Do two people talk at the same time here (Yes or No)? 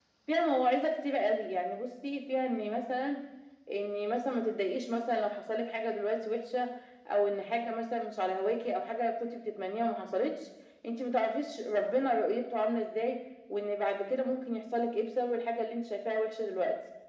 No